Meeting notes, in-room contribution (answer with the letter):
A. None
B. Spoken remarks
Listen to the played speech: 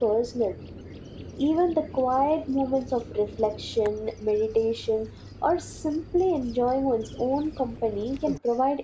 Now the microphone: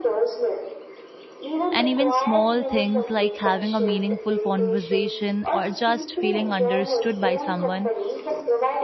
B